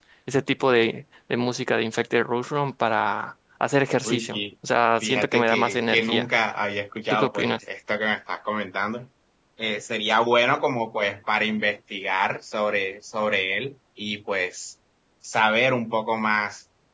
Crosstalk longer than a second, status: present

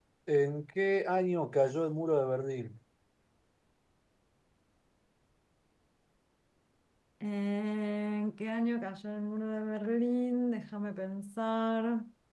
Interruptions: none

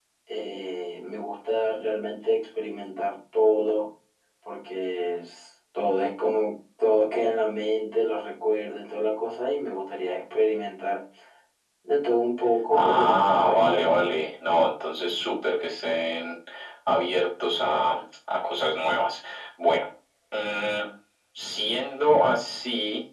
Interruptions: present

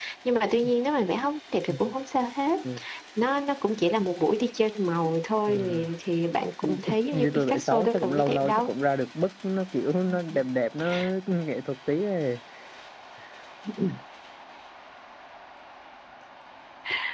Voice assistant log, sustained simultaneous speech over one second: present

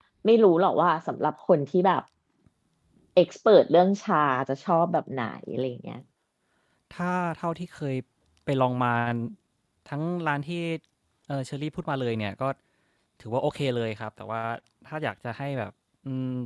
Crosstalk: none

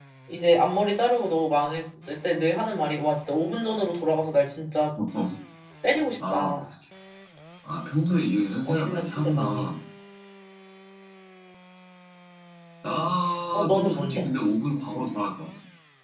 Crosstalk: present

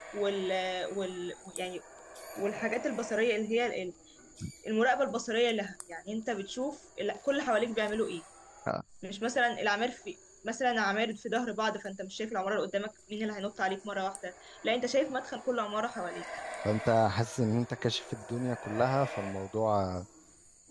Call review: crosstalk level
none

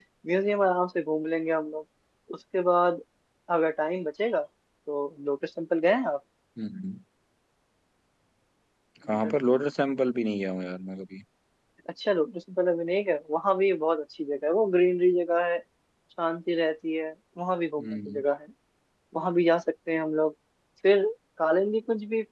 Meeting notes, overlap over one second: none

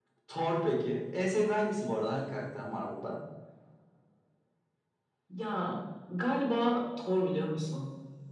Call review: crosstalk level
none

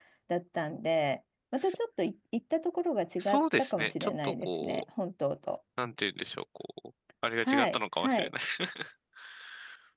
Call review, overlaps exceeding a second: present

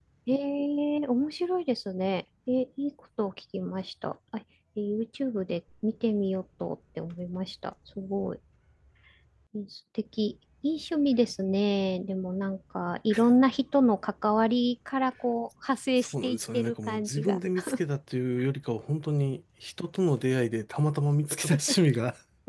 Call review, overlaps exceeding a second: present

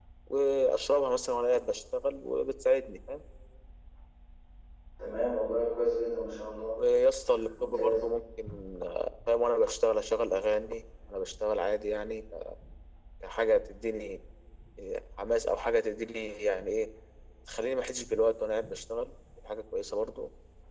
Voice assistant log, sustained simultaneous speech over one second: none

